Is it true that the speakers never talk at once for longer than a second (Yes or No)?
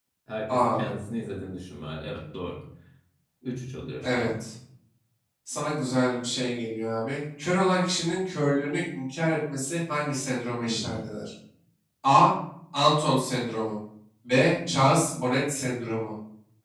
Yes